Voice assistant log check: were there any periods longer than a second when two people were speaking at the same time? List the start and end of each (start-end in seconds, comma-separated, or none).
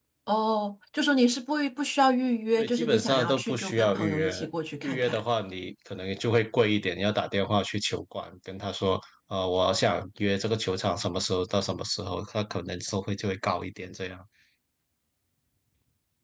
2.6-4.4